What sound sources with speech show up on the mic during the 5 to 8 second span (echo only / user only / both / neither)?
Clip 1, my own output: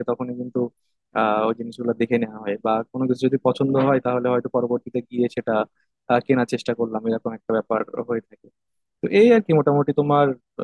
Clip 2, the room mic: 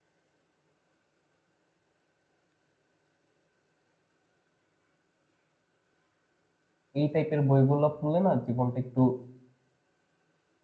user only